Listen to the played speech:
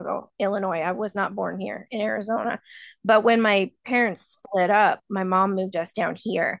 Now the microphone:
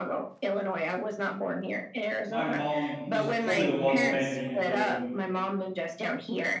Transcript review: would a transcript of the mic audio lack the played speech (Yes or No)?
No